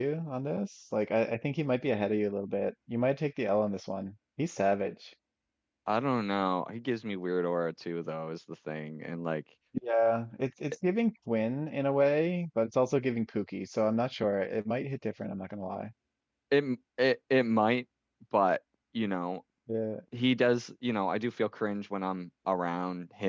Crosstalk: none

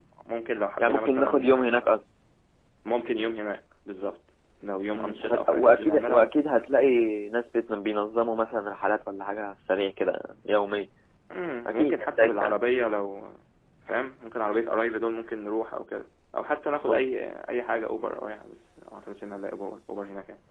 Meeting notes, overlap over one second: present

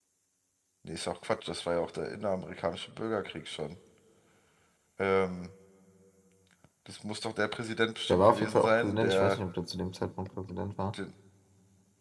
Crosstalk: present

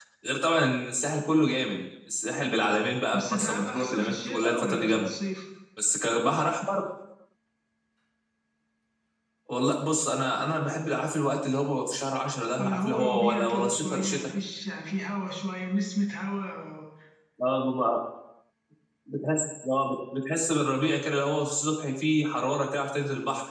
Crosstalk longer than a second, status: present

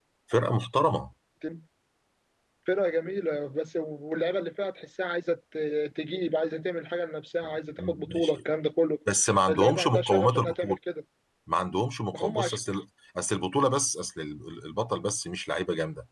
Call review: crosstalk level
present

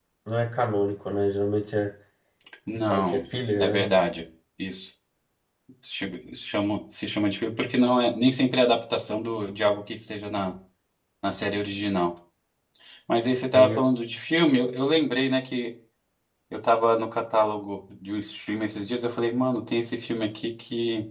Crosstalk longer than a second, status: none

